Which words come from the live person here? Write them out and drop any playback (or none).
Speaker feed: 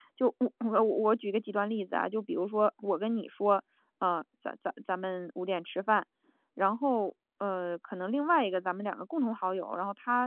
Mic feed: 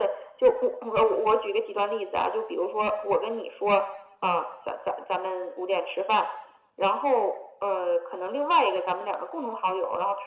none